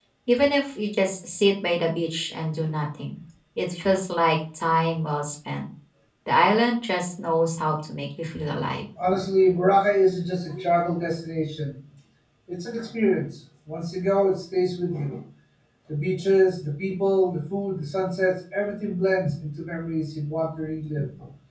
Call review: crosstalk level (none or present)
none